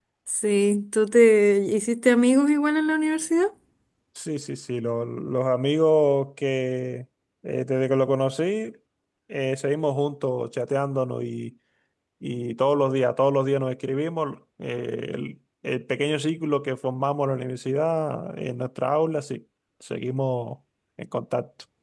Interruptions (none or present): none